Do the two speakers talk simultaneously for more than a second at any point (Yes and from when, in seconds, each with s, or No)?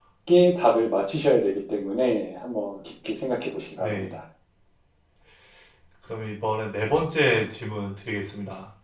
No